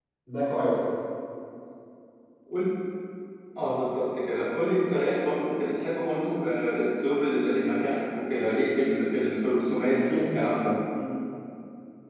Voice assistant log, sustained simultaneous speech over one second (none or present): none